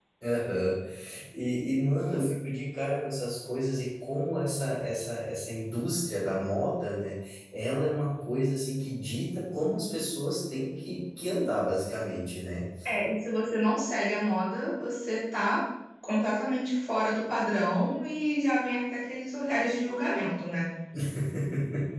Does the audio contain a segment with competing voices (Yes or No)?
No